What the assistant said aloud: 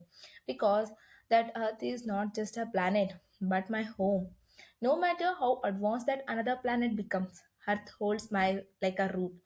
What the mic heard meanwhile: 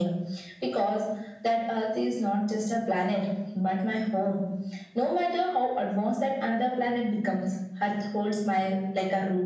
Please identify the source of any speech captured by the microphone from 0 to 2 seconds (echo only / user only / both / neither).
echo only